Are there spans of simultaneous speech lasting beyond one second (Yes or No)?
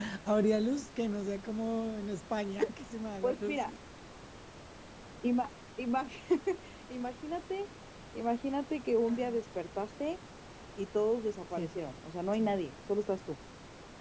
No